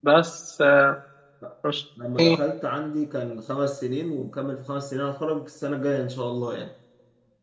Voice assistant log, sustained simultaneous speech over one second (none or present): none